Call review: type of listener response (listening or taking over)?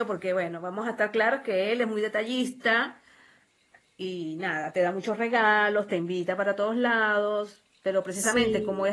listening